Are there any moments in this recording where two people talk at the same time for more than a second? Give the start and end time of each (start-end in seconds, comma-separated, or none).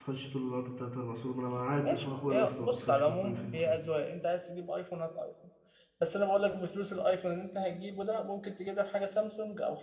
1.9-3.8